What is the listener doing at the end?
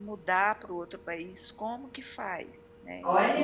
taking over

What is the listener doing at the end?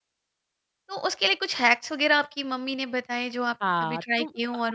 taking over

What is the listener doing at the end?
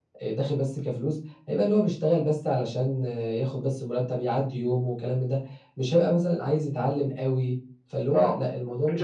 taking over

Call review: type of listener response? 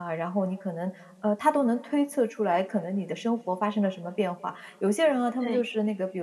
listening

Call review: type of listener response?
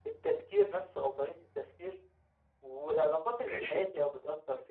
listening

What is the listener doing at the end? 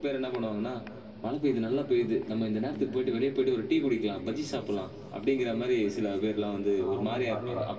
taking over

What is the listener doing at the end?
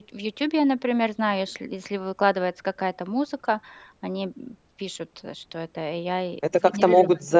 taking over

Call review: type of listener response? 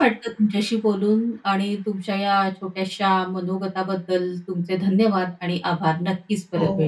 taking over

